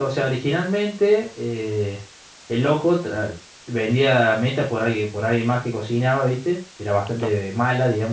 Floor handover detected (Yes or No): No